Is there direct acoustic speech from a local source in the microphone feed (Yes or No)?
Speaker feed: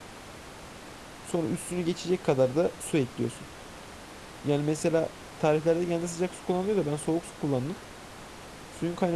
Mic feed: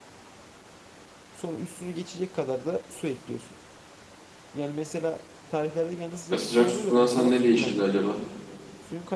Yes